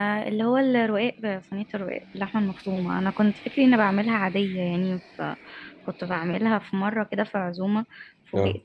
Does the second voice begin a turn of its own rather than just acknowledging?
No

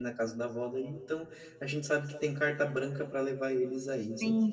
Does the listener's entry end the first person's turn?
Yes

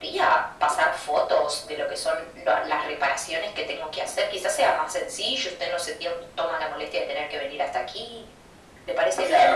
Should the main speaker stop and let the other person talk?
Yes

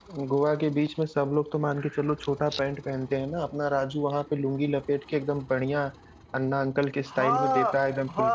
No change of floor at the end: No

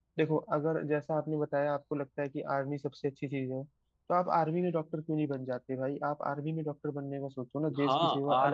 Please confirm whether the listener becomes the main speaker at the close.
Yes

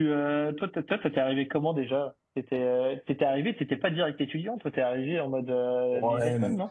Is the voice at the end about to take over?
Yes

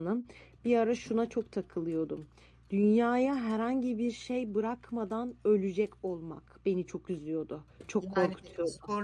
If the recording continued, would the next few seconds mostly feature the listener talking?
Yes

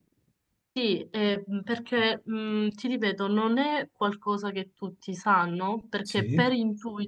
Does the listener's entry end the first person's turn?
No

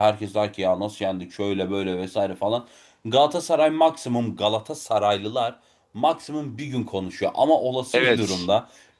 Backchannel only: Yes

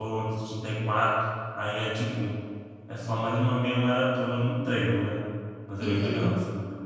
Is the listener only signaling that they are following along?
No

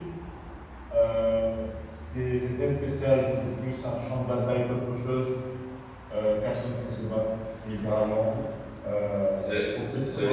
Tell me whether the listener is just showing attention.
No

